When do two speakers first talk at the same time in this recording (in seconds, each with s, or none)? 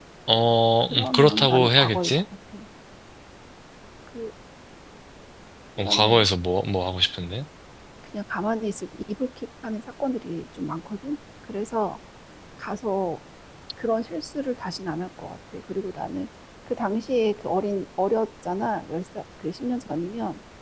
0.9 s